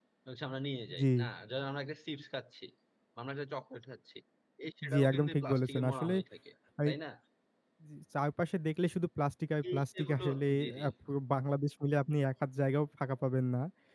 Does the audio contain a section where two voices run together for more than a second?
Yes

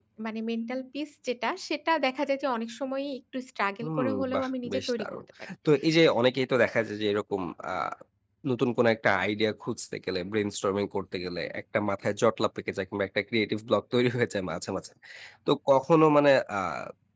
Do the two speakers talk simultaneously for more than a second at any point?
Yes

